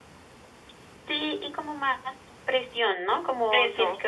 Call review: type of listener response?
listening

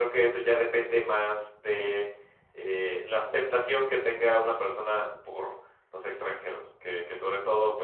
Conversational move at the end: listening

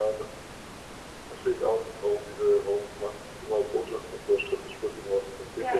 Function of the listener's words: taking over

